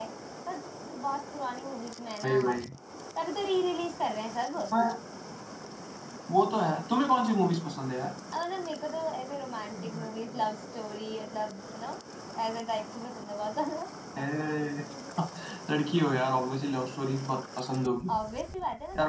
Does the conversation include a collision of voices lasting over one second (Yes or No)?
No